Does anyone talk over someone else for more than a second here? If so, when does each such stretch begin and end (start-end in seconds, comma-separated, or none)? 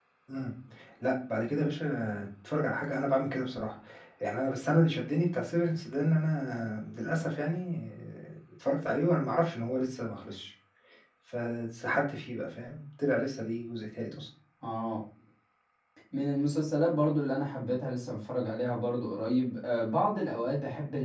none